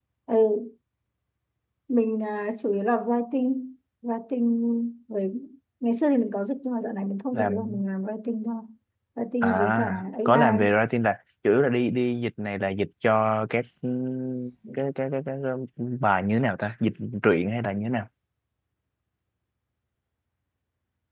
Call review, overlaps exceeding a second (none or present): present